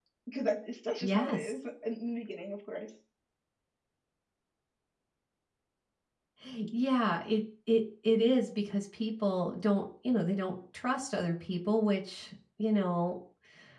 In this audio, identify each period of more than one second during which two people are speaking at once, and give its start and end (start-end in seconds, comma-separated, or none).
none